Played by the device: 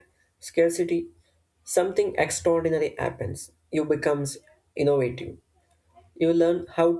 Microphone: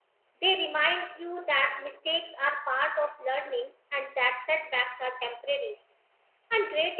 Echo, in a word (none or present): none